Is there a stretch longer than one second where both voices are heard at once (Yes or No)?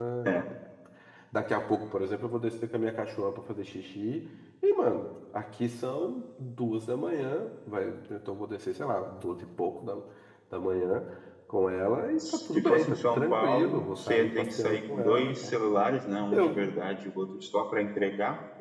Yes